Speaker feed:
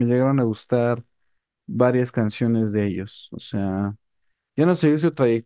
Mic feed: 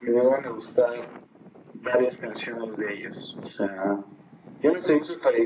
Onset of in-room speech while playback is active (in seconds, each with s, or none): none